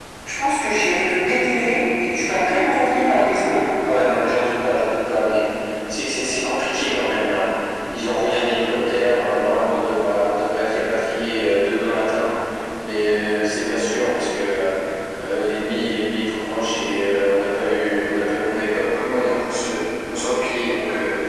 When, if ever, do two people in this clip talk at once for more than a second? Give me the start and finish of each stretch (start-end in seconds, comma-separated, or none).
none